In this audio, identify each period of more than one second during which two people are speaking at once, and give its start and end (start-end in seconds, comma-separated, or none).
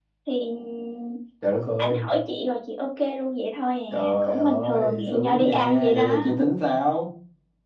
3.9-6.2